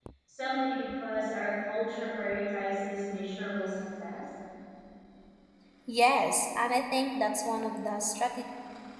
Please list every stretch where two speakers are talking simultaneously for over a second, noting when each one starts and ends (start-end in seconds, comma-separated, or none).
none